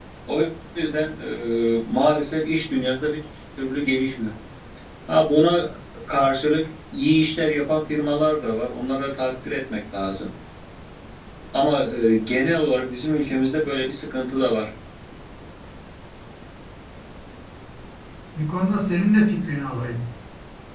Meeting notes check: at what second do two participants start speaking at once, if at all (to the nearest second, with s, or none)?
none